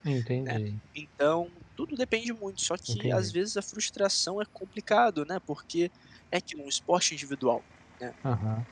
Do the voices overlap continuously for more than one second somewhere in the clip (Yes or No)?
No